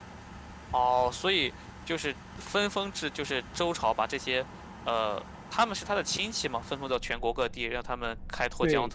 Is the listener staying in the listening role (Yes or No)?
No